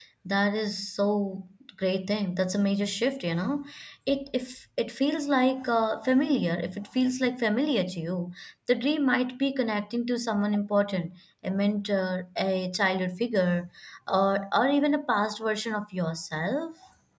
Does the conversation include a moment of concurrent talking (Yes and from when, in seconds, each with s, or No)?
No